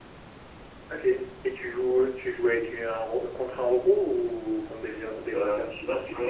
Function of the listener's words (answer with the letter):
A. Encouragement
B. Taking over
B